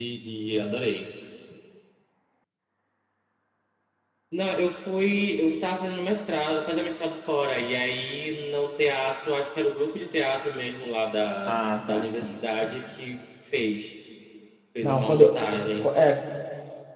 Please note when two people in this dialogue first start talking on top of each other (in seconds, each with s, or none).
11.5 s